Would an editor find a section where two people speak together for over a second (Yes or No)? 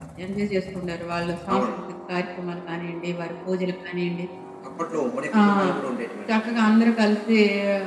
No